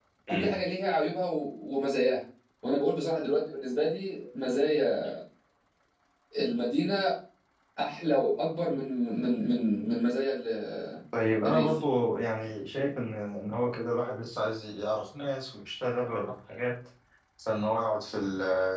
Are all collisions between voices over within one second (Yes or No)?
Yes